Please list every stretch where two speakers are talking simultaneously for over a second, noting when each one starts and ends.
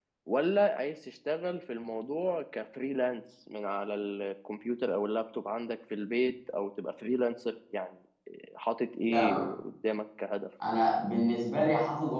none

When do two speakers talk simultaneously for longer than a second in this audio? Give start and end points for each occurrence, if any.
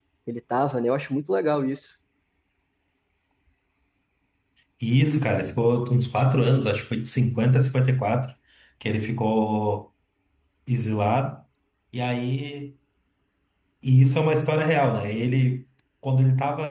none

